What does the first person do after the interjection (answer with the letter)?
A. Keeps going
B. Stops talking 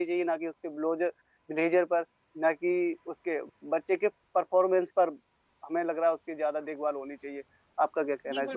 B